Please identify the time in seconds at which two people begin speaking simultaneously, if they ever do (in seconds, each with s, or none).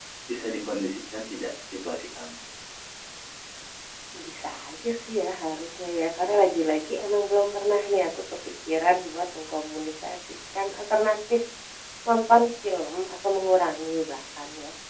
none